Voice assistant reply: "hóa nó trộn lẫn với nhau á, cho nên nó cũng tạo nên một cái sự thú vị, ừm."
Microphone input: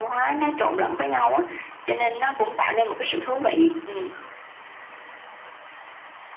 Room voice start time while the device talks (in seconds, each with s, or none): none